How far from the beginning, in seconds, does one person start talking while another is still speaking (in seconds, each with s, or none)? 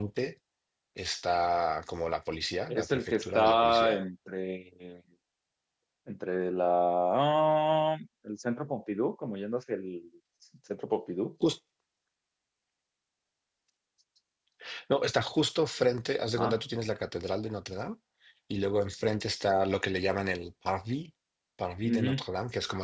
2.7 s